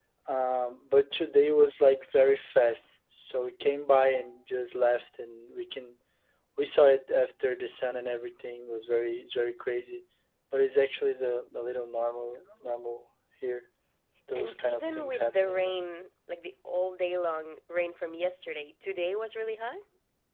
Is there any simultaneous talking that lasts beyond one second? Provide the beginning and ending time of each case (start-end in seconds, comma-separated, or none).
14.3-15.8